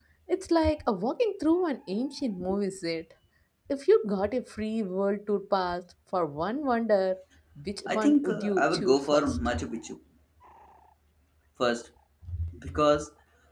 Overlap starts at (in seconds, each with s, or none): 7.9 s